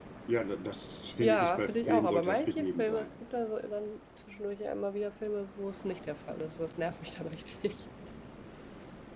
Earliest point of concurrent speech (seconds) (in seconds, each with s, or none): 1.2 s